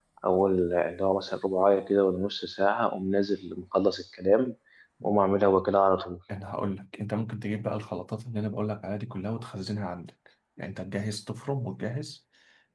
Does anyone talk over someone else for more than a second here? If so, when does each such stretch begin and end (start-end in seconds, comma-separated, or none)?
none